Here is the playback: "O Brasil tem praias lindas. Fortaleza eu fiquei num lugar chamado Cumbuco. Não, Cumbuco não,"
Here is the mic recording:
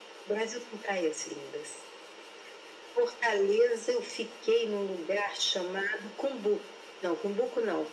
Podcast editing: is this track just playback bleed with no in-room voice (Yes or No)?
Yes